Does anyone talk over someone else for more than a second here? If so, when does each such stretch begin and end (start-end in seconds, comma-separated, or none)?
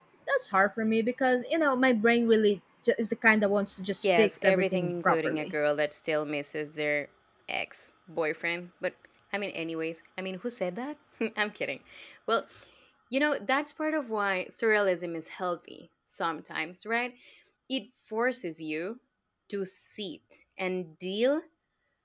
4.0-5.5